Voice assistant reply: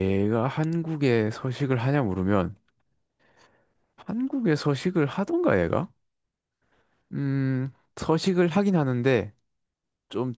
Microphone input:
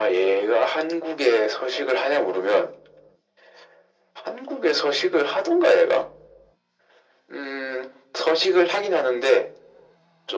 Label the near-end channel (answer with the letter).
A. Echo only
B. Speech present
A